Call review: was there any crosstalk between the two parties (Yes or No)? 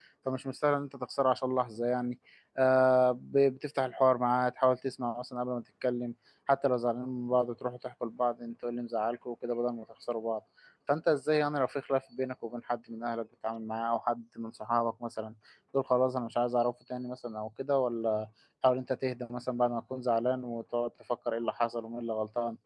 No